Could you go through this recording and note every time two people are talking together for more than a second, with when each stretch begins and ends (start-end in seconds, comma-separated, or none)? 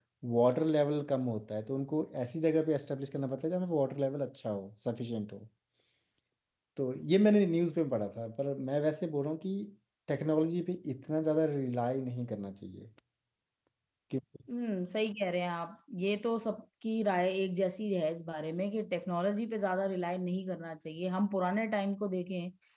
none